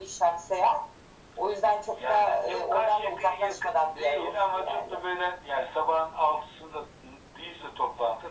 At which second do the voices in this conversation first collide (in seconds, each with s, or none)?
1.9 s